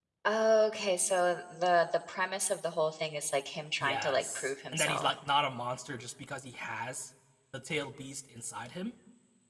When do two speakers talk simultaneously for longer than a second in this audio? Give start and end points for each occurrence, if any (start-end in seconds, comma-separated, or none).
3.8-5.1